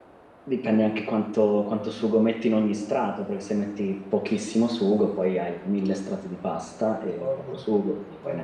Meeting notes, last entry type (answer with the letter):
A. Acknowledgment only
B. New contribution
B